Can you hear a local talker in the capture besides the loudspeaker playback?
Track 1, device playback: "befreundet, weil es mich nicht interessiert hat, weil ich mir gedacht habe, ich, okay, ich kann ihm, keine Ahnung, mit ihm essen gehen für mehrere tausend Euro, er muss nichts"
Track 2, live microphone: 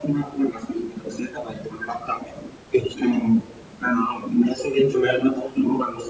No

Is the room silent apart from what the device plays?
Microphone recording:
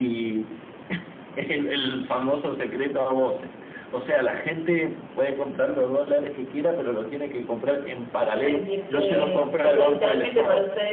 No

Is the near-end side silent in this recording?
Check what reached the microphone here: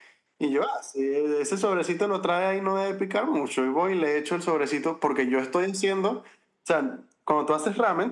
Yes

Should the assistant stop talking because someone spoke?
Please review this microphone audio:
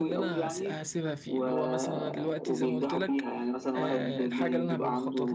Yes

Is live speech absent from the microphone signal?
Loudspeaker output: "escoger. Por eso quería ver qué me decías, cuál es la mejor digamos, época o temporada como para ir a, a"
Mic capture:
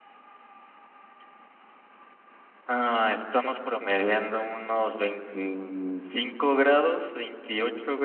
No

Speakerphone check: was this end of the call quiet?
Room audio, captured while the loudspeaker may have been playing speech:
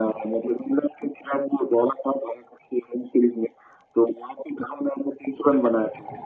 Yes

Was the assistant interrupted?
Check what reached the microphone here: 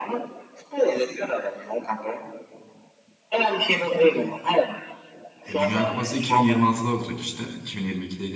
Yes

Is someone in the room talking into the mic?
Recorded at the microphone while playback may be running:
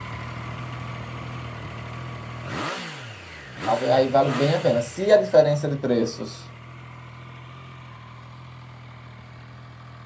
Yes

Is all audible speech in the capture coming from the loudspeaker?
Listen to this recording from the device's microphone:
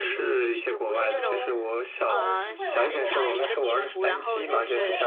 No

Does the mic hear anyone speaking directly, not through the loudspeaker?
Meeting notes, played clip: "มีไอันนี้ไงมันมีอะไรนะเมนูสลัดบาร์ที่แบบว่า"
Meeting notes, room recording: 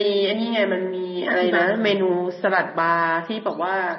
Yes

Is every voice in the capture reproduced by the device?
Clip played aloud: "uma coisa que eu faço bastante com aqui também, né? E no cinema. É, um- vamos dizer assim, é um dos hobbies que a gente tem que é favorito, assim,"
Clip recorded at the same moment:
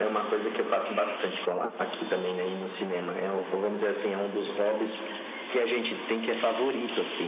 Yes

